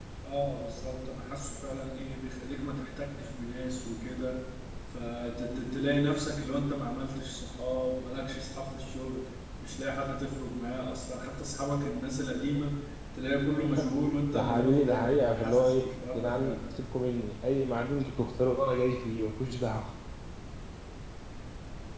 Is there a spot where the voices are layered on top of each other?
Yes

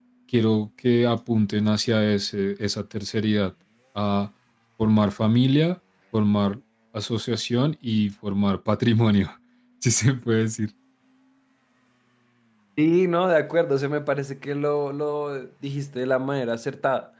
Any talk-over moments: No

